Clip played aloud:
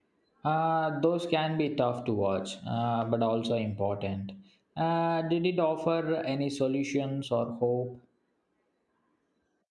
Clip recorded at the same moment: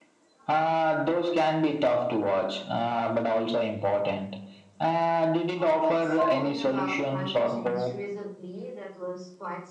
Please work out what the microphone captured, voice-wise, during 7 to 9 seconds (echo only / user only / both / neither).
both